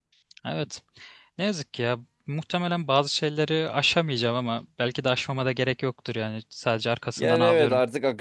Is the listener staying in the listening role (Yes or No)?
No